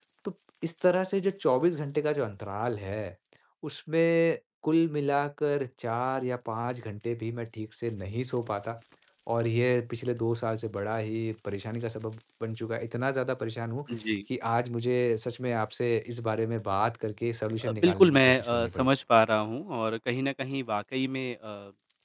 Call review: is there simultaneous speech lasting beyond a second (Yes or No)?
Yes